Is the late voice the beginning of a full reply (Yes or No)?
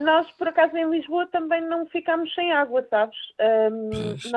No